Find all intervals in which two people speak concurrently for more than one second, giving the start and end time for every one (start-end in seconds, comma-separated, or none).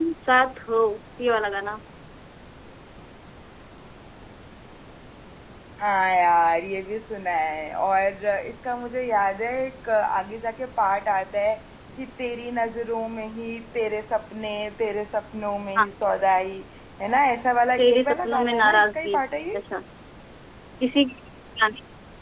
17.8-19.2